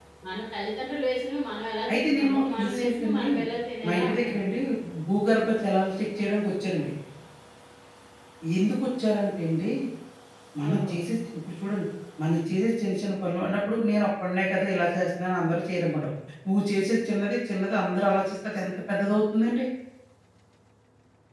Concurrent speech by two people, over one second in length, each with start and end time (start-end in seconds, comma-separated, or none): 1.9-3.2